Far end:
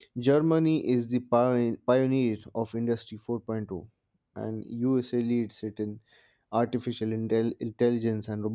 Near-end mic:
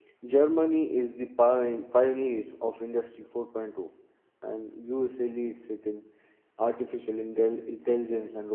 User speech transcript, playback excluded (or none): none